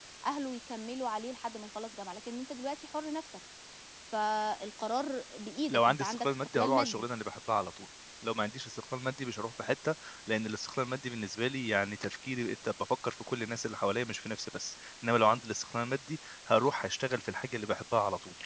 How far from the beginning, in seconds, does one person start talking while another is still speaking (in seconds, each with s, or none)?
5.7 s